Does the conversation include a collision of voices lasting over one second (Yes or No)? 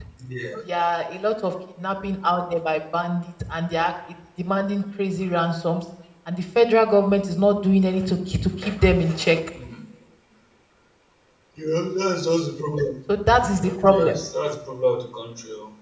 No